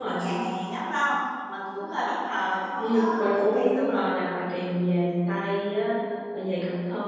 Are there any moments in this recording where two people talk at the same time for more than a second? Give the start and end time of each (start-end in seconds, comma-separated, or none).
2.8-4.0